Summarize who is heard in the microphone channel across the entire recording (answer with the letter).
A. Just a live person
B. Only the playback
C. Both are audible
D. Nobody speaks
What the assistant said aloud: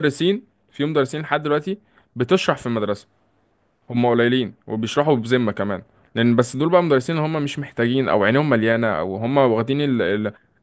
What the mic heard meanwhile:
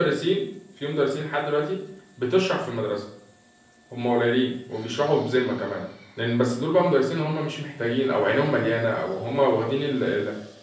B